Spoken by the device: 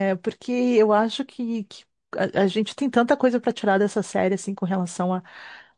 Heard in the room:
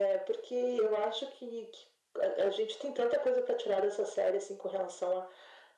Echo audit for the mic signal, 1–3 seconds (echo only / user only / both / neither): echo only